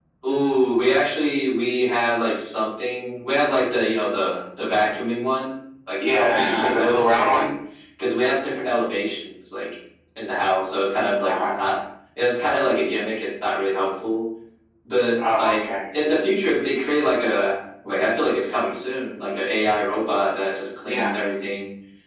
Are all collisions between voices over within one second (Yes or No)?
No